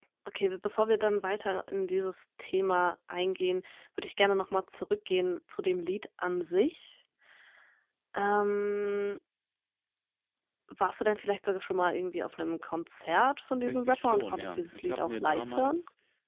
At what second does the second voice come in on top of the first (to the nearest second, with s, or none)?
14 s